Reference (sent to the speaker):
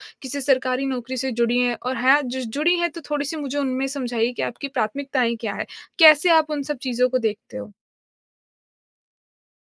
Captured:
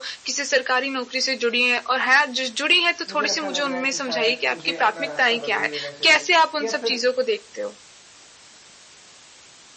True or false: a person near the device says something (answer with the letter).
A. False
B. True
B